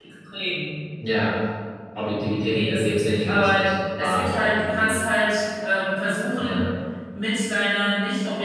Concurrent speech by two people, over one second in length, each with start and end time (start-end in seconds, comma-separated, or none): 2.5-4.9